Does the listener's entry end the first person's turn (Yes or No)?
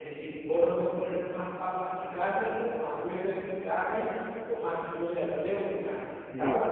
Yes